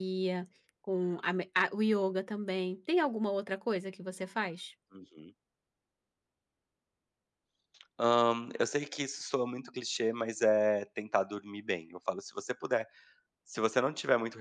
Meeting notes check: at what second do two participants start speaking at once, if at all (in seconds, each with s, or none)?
none